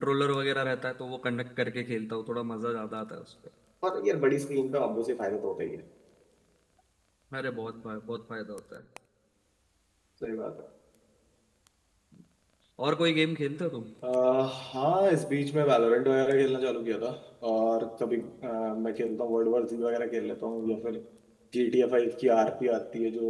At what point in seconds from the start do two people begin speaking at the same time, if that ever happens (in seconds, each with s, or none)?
none